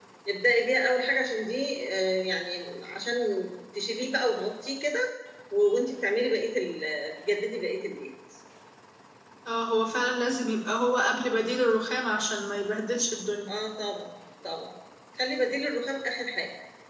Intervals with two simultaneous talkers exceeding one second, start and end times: none

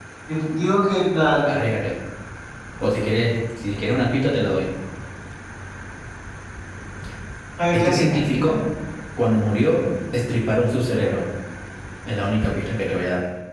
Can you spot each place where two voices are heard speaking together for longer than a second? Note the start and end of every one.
none

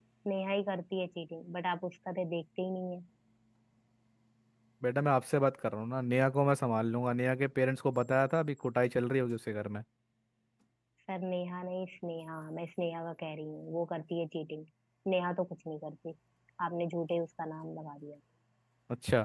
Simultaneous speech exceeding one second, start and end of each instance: none

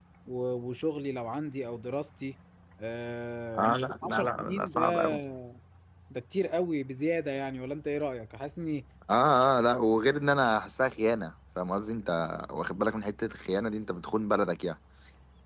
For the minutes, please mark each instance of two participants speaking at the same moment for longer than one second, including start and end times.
3.6-5.0

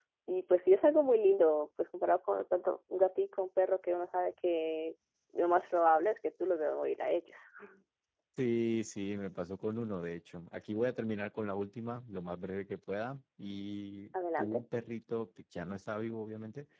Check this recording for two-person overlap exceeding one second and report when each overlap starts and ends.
none

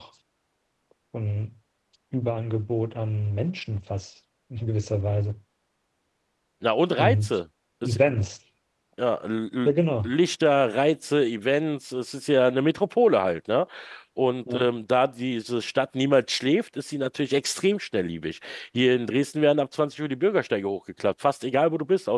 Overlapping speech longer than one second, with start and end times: none

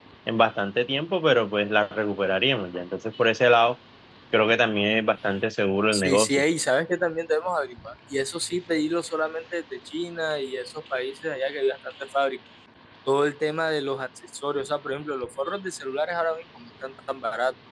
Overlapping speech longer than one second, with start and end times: none

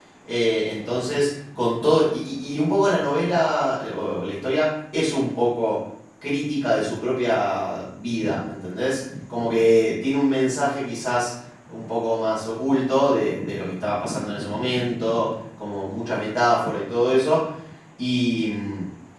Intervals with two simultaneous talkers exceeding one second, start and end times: none

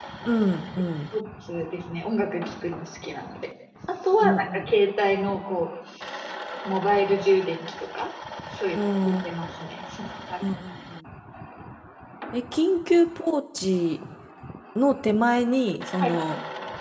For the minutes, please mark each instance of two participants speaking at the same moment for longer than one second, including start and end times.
none

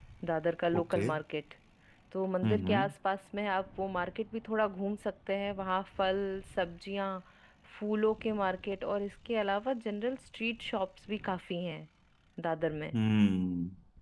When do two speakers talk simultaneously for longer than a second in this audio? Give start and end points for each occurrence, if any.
none

